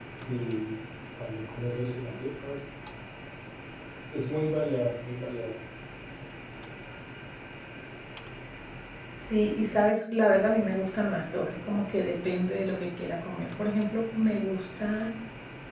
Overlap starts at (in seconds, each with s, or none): none